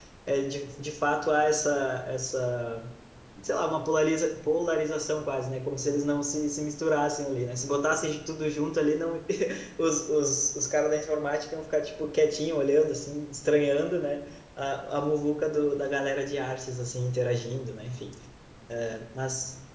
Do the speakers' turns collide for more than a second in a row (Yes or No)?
No